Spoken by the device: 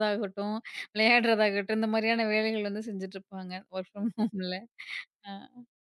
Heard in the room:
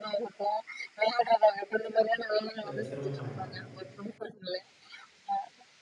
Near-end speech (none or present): present